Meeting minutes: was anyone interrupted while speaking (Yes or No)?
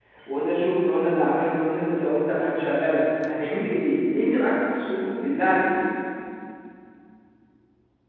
No